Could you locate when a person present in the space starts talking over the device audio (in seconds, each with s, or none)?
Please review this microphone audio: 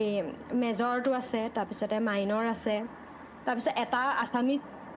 none